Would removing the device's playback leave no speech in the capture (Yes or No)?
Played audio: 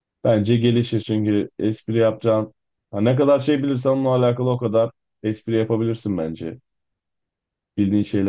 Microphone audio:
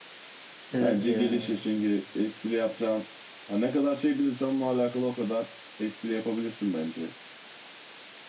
No